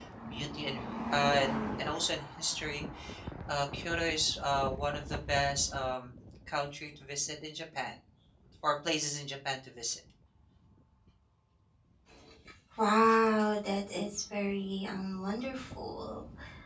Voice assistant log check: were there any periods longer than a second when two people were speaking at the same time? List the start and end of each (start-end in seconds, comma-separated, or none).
none